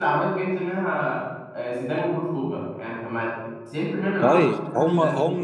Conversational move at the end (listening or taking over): taking over